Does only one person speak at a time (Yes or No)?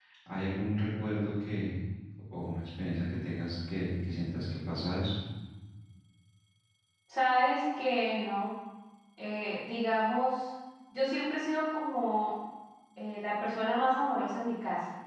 Yes